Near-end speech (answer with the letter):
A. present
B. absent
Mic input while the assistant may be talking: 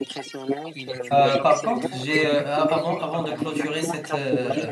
A